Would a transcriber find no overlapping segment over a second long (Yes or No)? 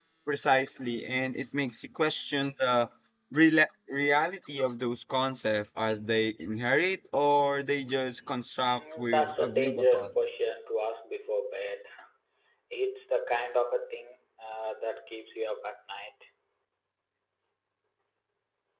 No